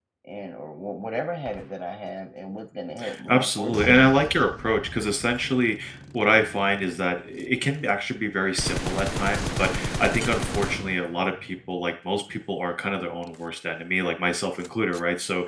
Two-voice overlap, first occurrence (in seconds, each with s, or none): 3.3 s